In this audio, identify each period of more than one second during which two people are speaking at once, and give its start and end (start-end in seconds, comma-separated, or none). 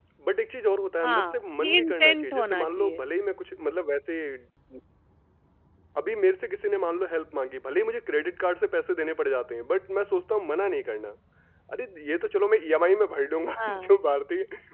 1.0-3.0